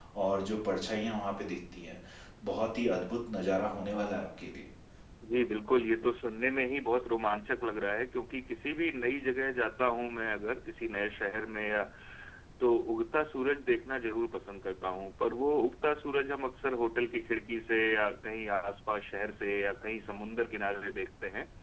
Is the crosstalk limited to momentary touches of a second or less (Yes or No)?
Yes